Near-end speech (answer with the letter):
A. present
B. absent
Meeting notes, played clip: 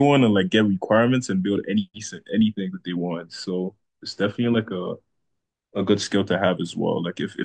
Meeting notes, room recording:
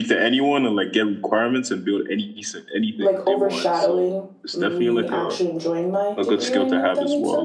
A